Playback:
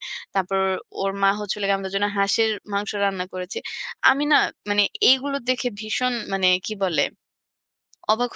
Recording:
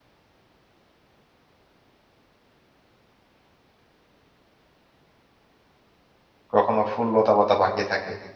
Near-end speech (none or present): present